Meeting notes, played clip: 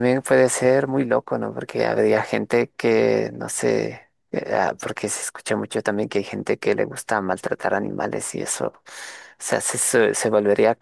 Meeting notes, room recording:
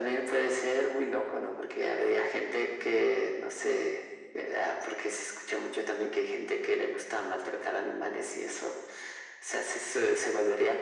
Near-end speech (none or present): none